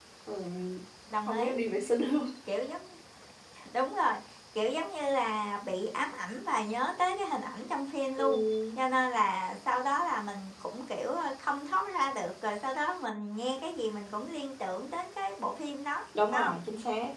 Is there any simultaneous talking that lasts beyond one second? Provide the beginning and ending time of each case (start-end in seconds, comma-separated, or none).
none